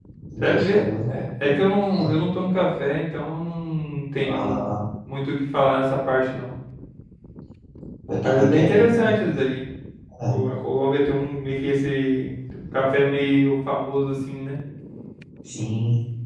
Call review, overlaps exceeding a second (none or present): present